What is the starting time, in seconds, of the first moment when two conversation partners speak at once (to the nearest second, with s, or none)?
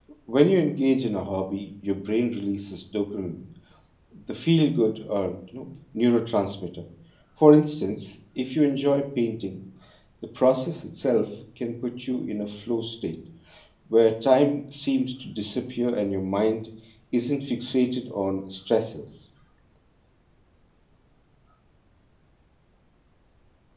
none